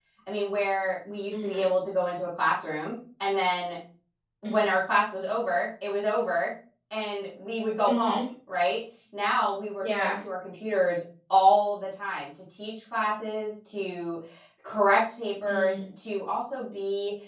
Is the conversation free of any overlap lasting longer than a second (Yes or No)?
Yes